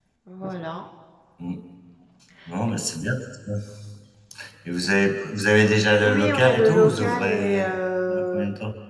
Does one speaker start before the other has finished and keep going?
Yes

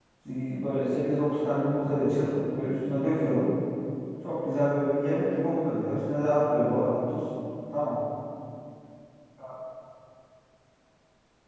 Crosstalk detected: No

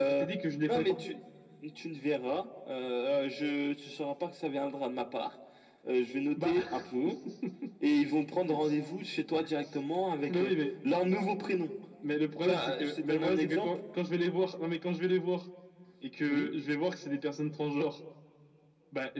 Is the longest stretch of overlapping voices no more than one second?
No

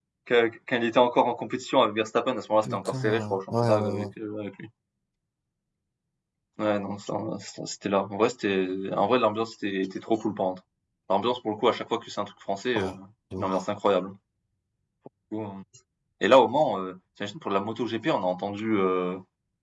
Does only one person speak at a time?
No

